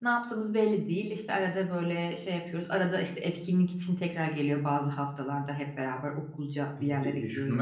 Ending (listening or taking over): taking over